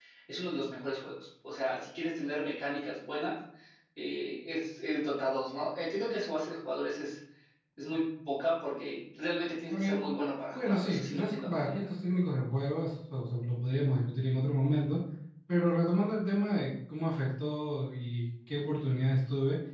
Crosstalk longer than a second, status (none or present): present